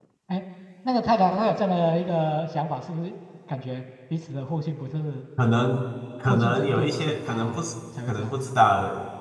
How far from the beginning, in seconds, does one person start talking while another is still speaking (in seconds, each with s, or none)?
6.3 s